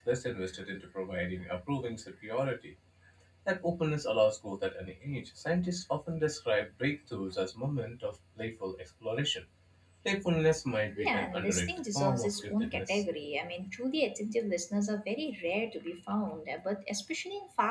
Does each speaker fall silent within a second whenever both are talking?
No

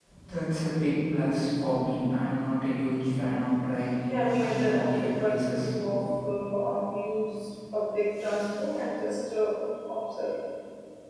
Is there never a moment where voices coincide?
No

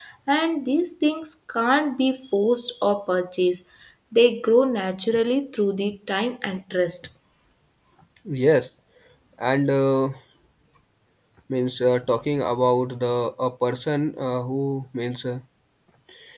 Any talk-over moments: No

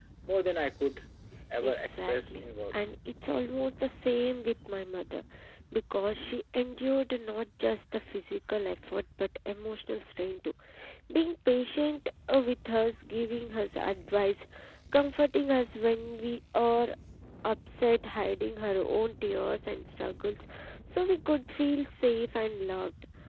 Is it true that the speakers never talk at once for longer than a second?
No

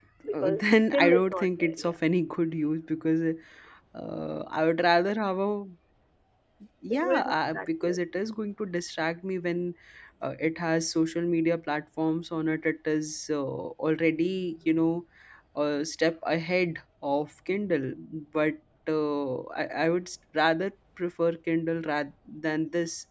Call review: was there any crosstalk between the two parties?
Yes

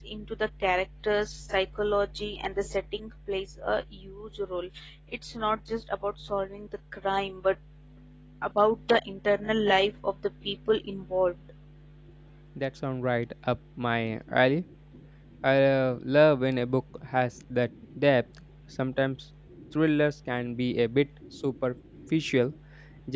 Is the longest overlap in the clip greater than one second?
No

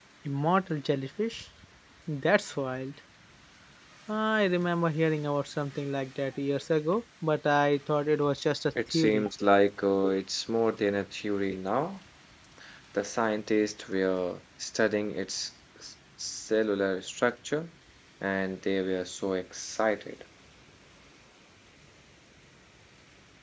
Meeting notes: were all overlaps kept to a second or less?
Yes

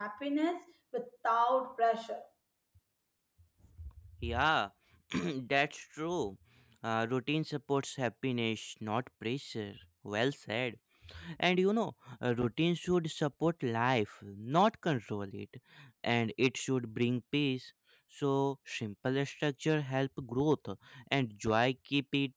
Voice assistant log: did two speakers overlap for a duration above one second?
No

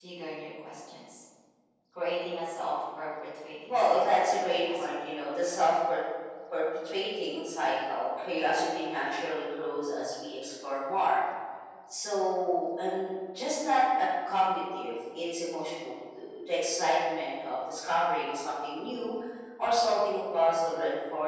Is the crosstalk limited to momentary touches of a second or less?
No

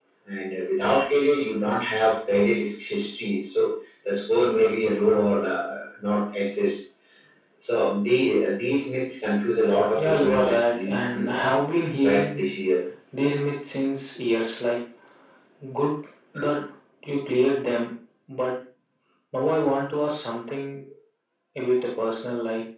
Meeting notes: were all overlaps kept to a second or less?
No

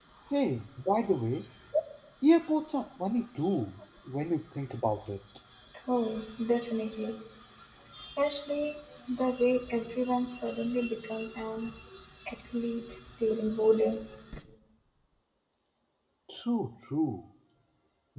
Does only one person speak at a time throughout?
Yes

